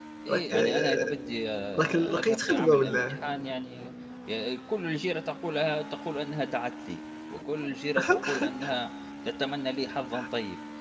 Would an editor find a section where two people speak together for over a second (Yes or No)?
Yes